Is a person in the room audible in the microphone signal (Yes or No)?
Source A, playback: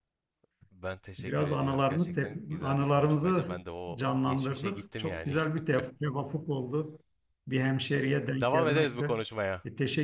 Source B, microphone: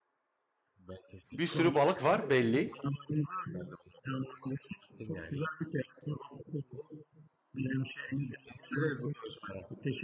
Yes